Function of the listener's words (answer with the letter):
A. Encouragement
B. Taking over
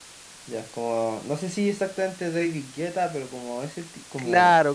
B